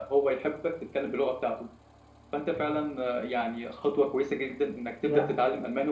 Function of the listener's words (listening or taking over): listening